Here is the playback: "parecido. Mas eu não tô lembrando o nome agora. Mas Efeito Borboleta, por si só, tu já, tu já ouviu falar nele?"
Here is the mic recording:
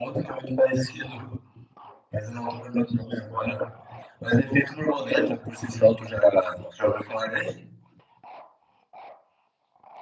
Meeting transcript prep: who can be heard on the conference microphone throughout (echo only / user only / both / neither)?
echo only